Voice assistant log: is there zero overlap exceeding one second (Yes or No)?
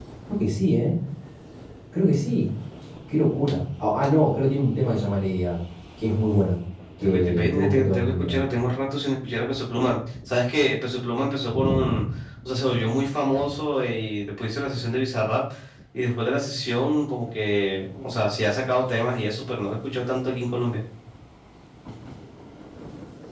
No